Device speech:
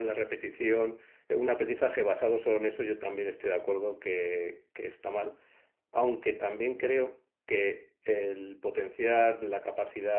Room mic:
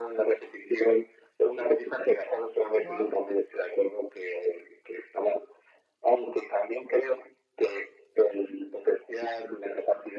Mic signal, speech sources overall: both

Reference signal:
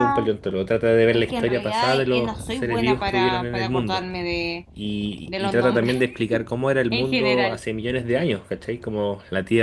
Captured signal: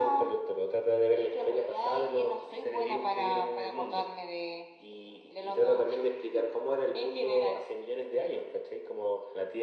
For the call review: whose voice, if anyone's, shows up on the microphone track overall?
echo only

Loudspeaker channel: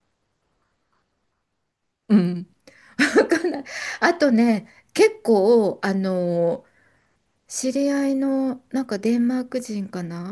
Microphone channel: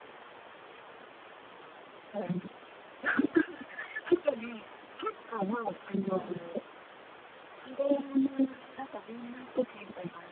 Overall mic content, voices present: both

